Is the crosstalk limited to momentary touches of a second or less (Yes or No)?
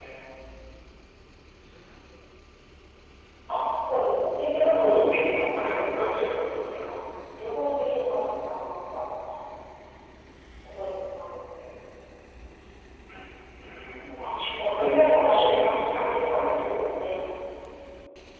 No